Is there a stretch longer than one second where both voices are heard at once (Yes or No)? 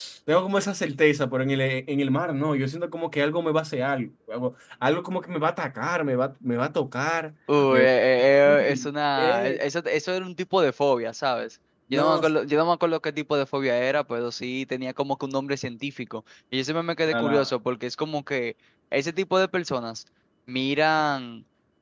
No